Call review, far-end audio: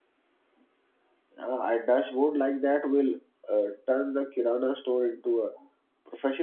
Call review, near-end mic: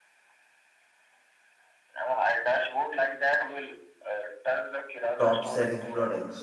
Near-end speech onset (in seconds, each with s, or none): 5.2 s